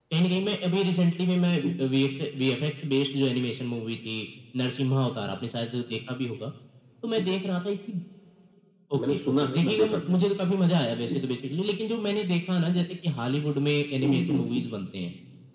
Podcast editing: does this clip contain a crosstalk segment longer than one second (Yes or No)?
Yes